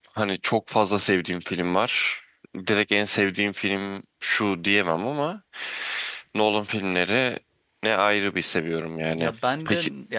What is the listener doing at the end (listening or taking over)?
taking over